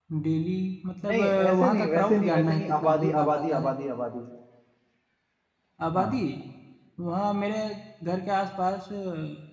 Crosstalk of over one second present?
Yes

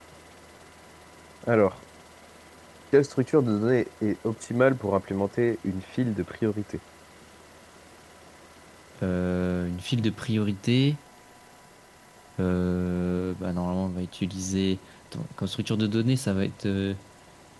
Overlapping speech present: No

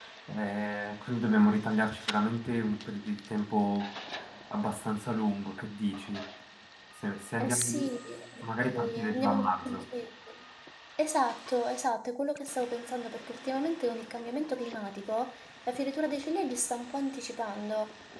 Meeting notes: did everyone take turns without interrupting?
No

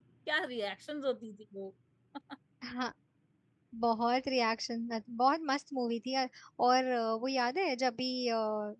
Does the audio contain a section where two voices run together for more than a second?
No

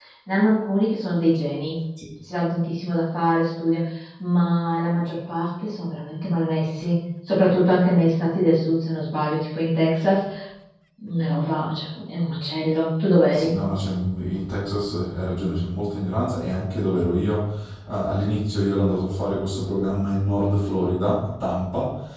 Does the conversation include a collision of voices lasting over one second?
No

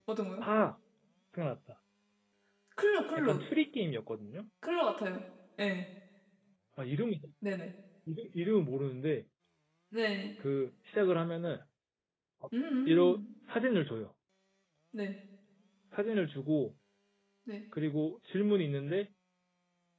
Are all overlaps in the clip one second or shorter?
Yes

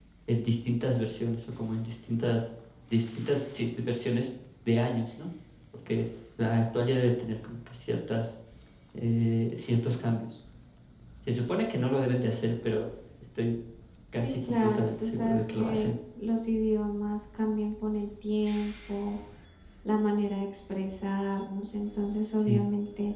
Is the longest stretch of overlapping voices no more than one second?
No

